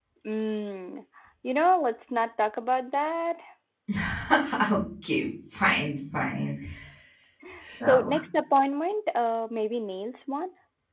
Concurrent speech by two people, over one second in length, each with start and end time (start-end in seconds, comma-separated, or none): none